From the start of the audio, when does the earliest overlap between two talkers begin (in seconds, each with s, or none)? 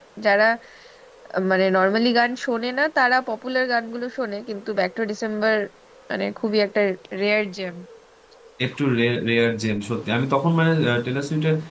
none